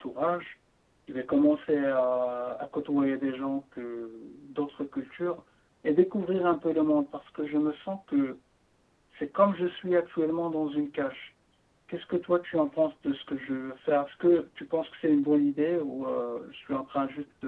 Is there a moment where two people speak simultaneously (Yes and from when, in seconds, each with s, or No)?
No